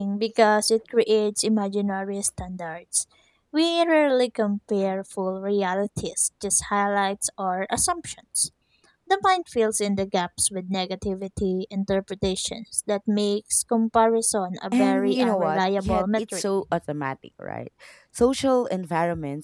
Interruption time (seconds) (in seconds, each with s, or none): 14.7 s